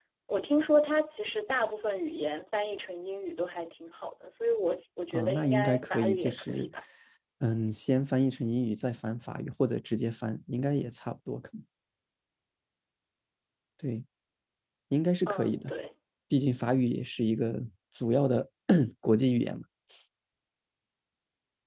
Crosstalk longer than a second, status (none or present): present